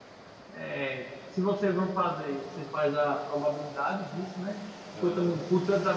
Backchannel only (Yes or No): Yes